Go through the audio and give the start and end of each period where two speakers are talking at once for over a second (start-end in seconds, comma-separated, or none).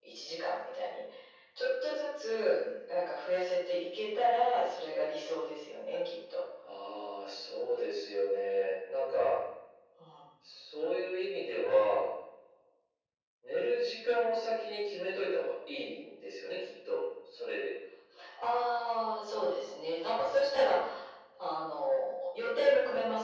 none